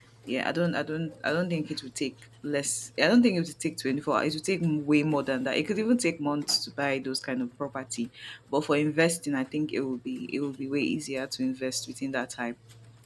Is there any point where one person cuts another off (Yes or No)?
No